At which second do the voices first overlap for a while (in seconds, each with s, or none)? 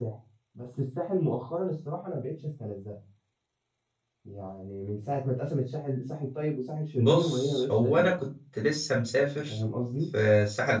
7.0 s